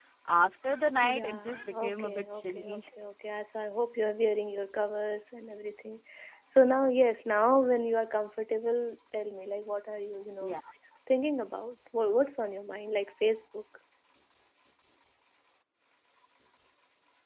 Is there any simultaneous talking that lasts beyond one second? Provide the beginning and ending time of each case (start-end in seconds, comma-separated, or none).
1.0-2.8